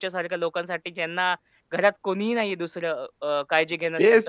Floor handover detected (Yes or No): Yes